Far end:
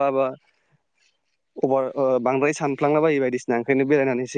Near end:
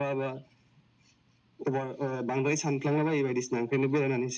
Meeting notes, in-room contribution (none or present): none